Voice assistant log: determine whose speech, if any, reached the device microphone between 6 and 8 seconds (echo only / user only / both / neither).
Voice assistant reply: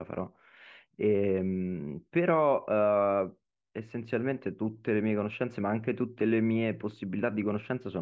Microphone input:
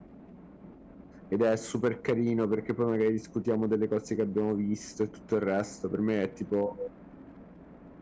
user only